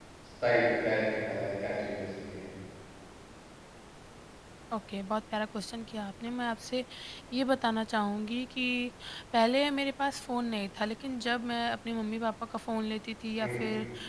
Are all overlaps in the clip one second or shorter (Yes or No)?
Yes